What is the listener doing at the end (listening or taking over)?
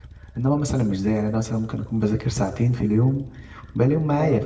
listening